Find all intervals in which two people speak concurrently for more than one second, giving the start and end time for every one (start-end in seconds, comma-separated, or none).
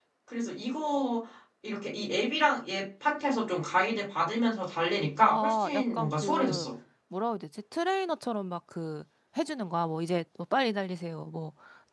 5.2-6.7